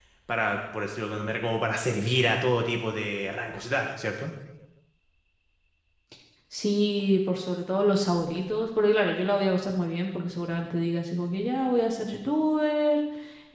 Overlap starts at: none

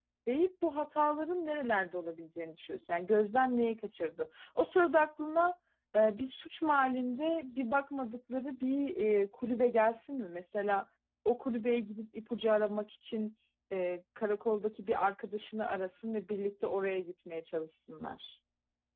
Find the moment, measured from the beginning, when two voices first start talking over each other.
none

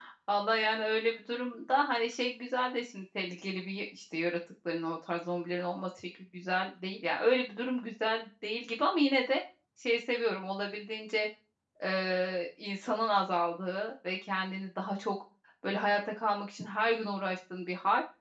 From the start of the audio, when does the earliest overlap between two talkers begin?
none

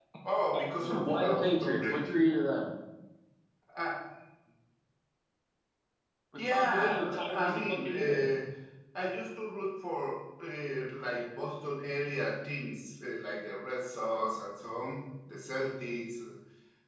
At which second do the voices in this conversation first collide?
0.8 s

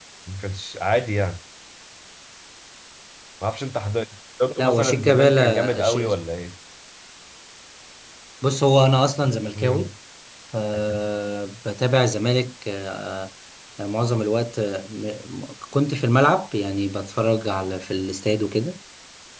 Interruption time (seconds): 4.6 s

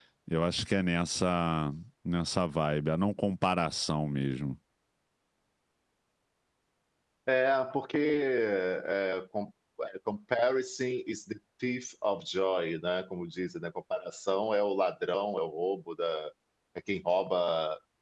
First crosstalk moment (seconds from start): none

